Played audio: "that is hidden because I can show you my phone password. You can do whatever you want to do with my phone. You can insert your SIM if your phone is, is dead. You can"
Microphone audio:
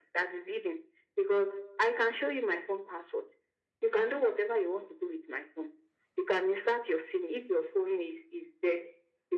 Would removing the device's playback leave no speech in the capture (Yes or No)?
Yes